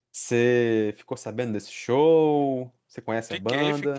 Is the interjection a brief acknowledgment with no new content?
No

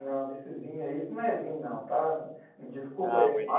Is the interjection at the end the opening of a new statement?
No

